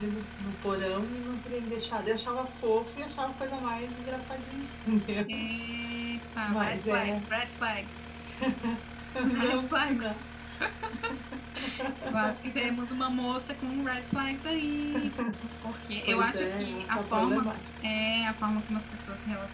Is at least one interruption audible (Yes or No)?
Yes